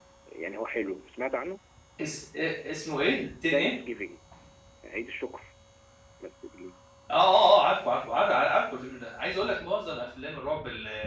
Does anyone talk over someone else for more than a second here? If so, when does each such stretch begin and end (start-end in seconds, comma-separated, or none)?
none